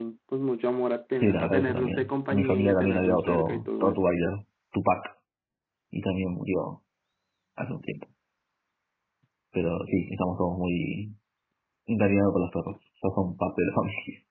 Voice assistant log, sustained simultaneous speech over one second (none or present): present